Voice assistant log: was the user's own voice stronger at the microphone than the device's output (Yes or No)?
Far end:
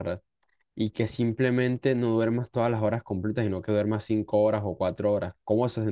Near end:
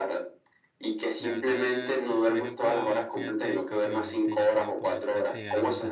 No